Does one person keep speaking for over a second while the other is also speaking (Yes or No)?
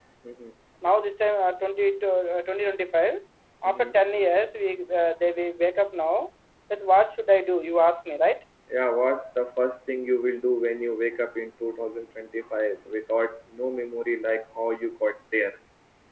No